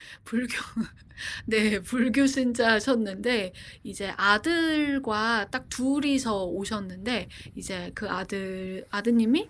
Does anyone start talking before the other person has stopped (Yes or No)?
No